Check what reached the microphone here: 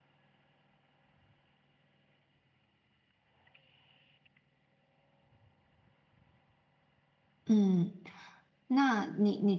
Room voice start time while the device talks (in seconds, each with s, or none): 7.4 s